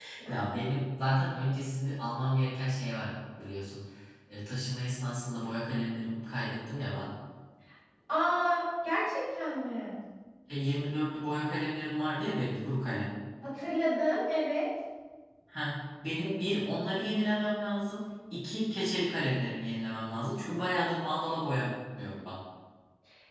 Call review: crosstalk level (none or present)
none